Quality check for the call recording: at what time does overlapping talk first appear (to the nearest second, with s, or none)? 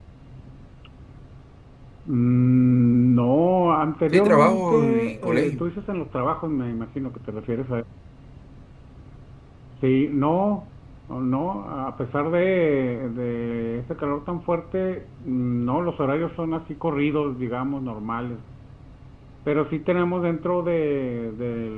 4 s